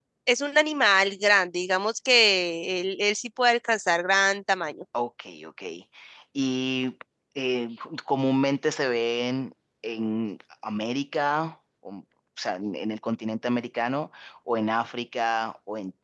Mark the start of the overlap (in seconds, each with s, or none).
none